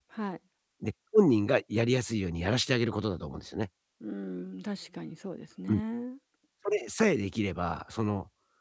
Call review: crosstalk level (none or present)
none